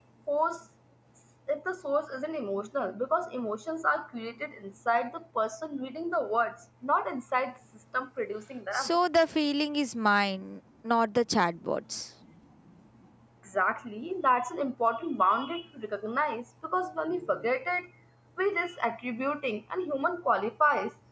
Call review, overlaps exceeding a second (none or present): none